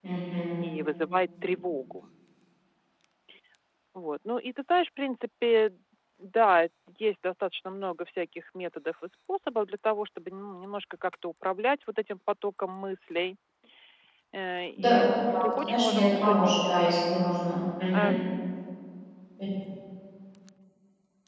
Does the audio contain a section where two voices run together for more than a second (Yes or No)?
Yes